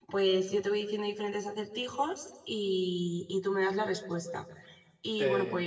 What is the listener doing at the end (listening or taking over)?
listening